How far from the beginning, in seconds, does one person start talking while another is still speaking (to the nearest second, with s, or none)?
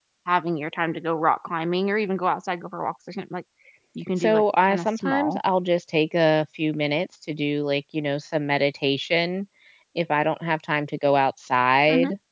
4 s